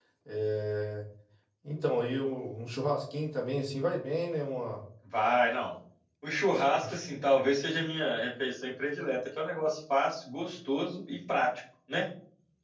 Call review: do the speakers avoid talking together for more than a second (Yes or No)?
Yes